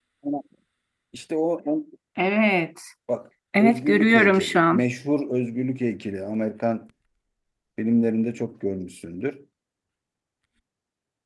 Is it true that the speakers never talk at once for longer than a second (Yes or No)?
No